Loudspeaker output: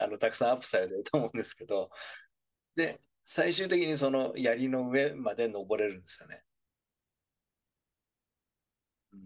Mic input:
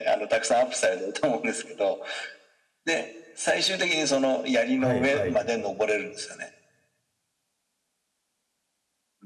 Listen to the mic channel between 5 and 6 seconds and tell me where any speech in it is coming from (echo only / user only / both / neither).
both